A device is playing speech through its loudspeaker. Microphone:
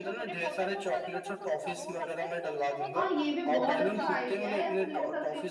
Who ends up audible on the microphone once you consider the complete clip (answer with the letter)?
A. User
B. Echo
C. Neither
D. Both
D